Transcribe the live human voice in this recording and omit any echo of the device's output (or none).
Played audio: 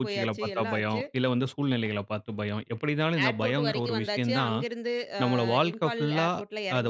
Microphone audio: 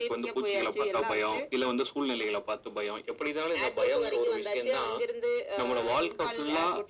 none